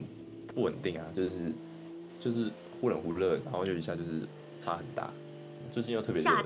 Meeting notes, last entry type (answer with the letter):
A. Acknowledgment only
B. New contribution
B